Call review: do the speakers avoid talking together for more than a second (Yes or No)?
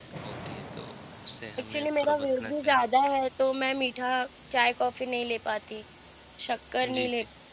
No